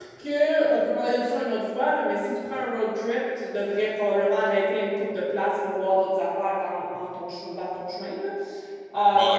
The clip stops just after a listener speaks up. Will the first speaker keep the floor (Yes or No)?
No